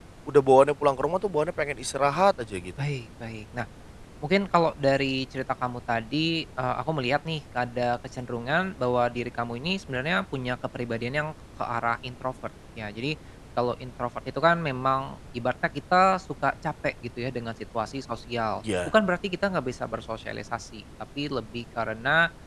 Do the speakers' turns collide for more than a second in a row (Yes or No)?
No